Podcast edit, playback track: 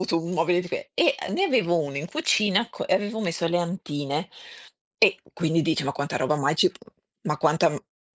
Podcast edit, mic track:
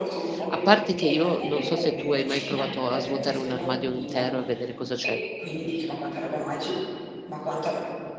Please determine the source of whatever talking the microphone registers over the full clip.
both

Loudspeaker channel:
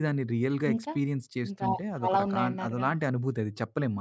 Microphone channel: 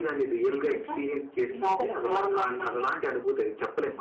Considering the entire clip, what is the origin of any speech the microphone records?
both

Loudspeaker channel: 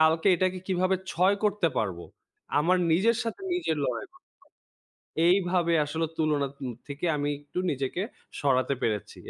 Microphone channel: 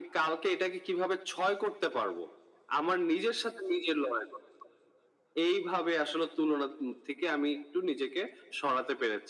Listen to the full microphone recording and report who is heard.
echo only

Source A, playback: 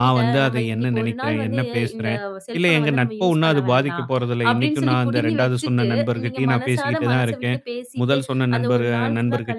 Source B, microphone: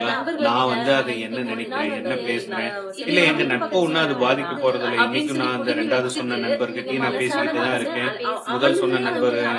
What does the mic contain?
both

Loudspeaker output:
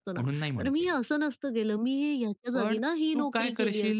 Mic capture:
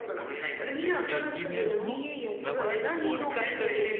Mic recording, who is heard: both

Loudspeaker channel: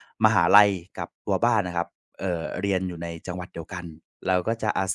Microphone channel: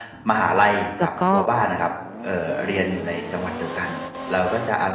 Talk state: both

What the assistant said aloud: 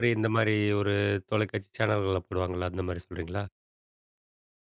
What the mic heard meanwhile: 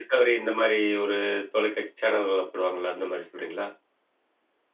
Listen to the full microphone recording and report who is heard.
echo only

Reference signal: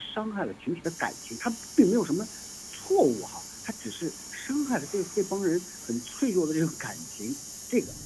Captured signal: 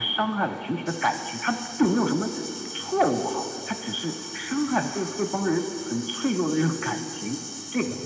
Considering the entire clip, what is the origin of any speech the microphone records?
echo only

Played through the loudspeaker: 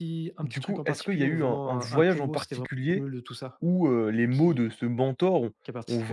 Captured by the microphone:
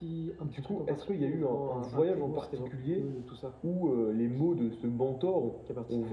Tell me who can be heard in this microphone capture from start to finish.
echo only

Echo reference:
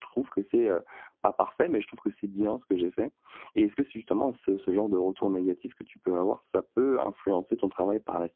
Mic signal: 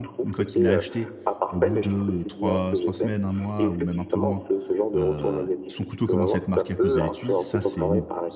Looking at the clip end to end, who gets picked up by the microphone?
both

